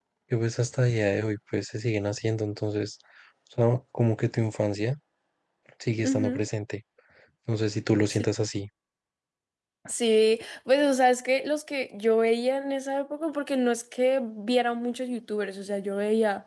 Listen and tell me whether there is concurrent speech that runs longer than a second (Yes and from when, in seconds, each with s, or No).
No